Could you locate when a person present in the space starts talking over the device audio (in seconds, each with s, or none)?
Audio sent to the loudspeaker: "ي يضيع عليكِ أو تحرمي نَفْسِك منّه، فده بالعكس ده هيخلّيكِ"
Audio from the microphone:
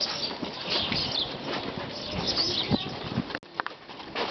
none